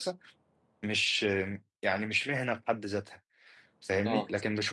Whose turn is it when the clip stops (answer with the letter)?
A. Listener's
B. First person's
B